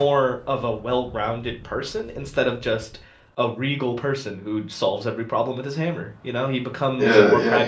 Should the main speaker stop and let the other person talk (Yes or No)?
Yes